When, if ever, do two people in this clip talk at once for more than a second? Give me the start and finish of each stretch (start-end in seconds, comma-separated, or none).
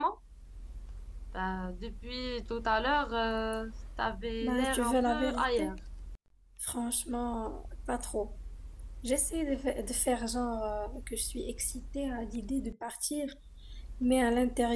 4.4-5.8